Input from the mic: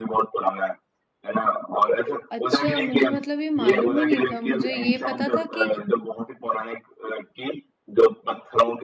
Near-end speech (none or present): present